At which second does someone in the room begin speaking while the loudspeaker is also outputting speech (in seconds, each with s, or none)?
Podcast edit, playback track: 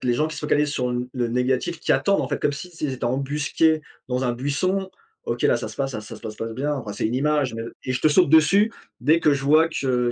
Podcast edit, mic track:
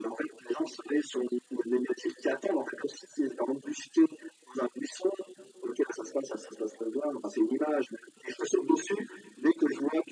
none